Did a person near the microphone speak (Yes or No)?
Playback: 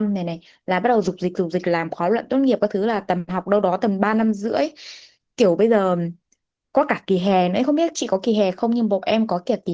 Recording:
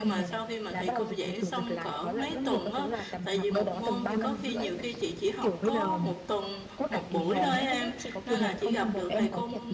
Yes